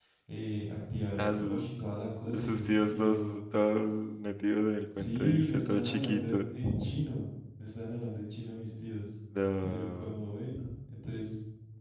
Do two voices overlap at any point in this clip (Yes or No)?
Yes